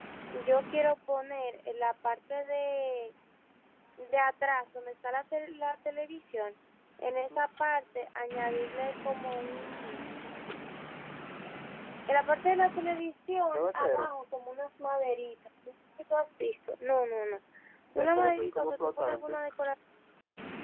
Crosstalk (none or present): present